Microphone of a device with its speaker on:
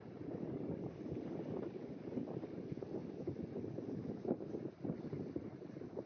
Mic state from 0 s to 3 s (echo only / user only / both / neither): neither